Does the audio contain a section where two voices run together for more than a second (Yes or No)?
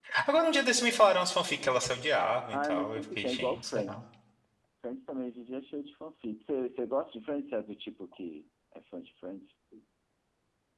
Yes